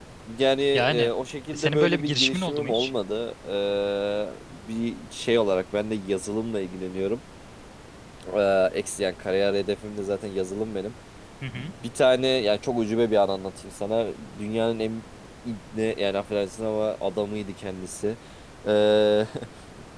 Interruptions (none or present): present